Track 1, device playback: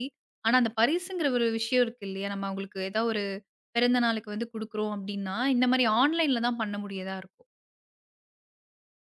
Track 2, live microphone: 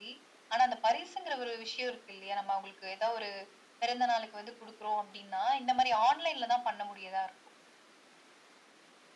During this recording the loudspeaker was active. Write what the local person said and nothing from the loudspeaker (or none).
none